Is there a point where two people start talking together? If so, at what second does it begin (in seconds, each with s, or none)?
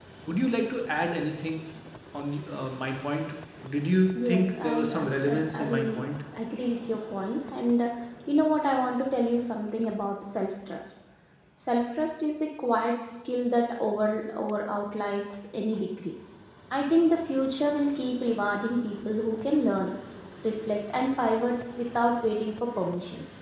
4.2 s